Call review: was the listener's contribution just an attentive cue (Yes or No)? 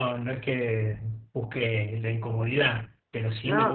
Yes